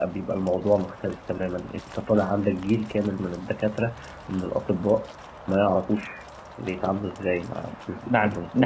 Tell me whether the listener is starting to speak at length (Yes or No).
Yes